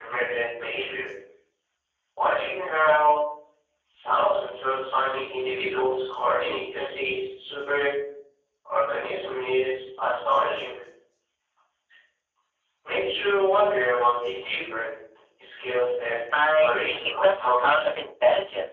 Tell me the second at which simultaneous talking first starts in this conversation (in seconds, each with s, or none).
16.3 s